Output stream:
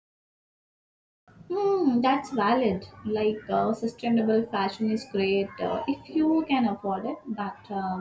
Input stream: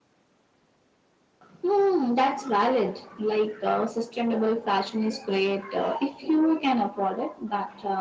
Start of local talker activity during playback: none

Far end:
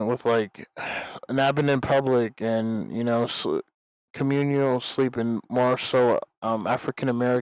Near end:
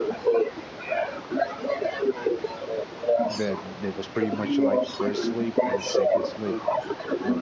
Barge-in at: 3.3 s

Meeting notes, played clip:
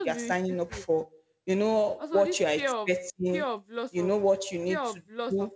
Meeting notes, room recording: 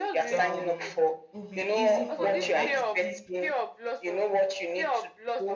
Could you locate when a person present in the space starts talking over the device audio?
0.3 s

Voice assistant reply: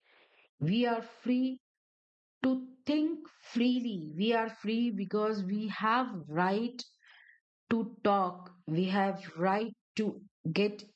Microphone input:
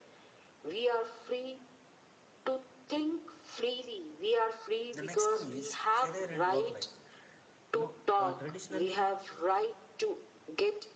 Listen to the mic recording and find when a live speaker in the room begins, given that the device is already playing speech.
4.9 s

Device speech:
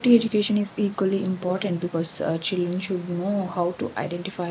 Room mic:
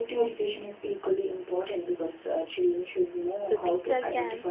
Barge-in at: 3.4 s

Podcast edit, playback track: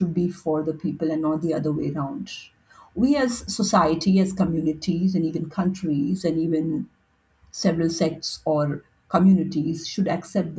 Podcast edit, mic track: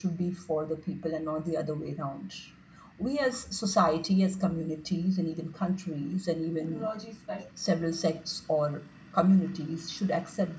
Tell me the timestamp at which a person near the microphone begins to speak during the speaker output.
6.5 s

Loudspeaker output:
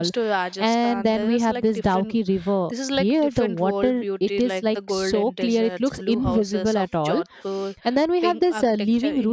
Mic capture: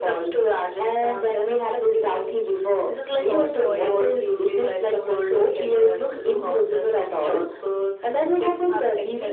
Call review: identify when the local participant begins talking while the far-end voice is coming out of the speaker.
3.2 s

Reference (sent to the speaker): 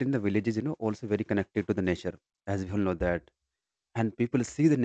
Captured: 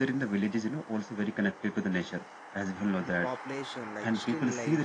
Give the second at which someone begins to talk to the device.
3.0 s

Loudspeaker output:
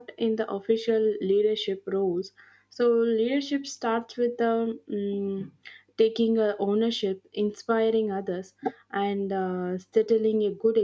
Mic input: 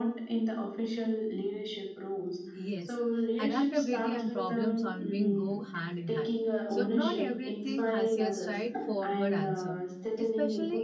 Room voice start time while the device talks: 2.5 s

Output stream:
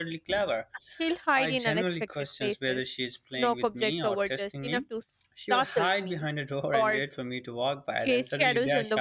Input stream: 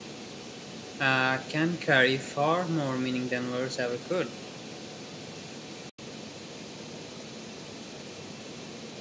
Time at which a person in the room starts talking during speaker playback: 1.1 s

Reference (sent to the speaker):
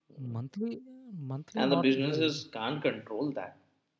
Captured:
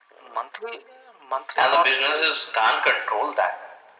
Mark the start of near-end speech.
none

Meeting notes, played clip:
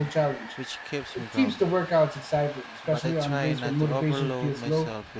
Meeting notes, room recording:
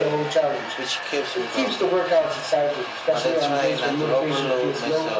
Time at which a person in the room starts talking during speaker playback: none

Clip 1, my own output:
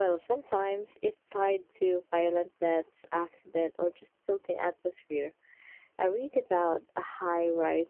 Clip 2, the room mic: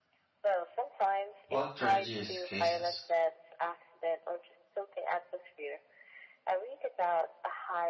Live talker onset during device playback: 1.5 s

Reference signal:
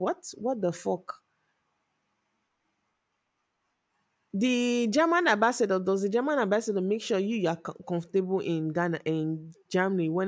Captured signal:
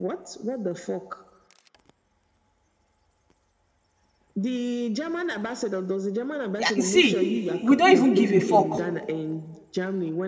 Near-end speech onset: 6.6 s

